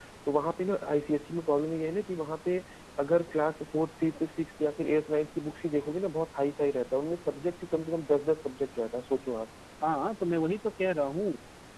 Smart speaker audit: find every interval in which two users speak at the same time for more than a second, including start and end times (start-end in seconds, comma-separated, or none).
none